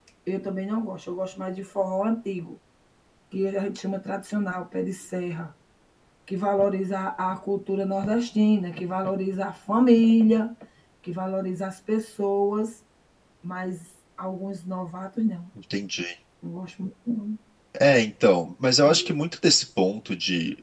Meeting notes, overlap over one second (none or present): none